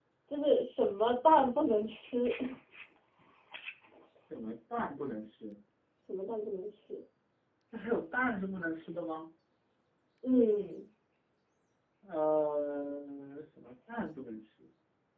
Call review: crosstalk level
none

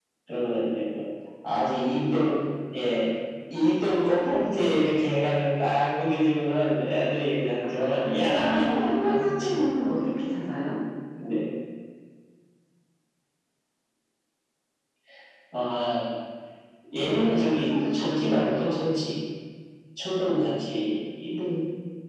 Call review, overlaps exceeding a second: present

